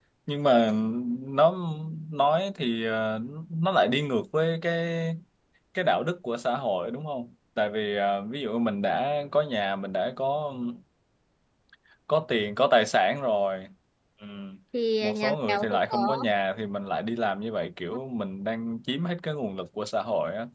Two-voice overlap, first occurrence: 15.0 s

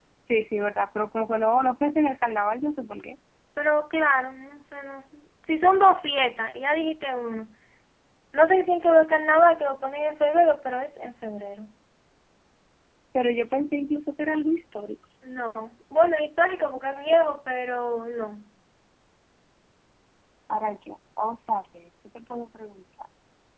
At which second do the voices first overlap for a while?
none

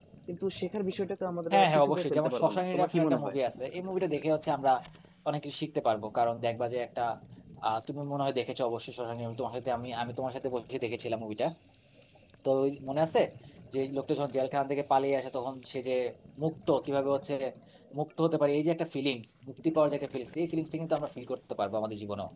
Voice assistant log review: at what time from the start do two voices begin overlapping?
1.5 s

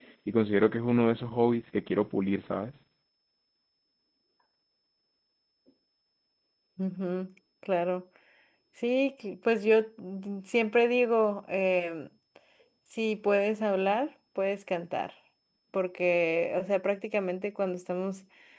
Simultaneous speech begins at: none

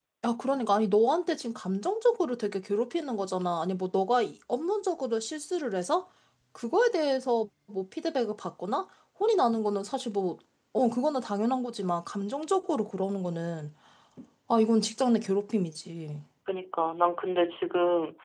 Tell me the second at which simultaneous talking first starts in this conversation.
none

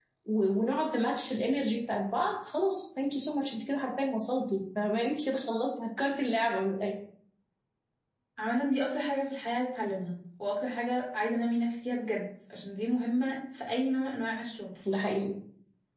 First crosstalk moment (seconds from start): none

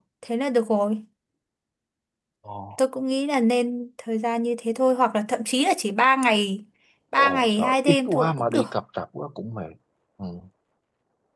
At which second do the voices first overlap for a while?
7.2 s

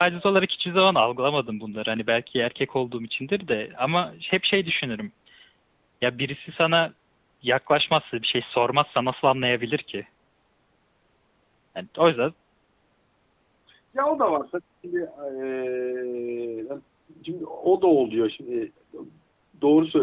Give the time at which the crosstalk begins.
none

